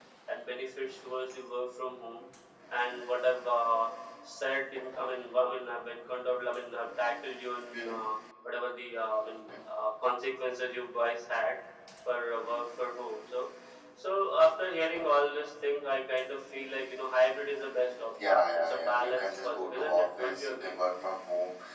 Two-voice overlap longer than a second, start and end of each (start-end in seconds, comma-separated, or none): 18.2-20.7